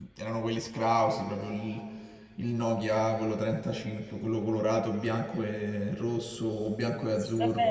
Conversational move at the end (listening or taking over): taking over